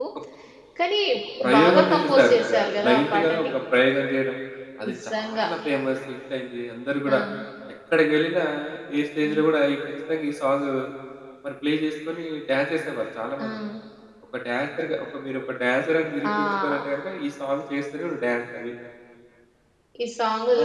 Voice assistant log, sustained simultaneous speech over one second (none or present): present